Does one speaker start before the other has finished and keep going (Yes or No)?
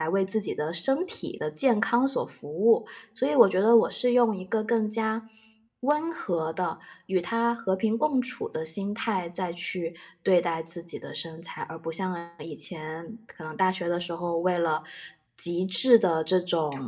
No